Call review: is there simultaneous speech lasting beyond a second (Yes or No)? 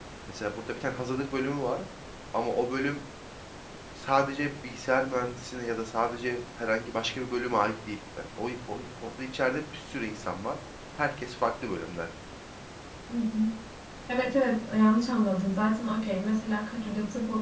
No